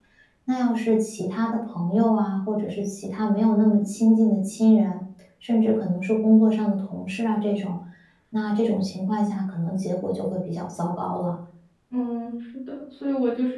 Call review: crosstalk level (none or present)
none